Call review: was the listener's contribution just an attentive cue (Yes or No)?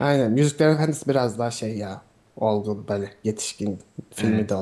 Yes